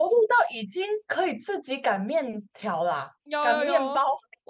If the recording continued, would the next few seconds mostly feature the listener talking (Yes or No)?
Yes